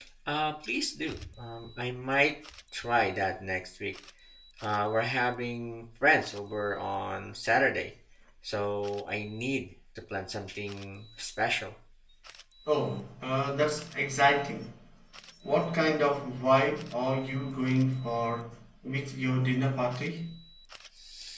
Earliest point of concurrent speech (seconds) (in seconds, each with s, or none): none